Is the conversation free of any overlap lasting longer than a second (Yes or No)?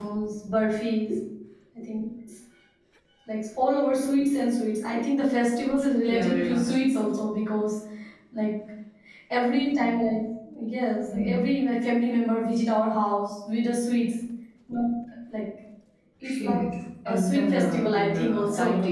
No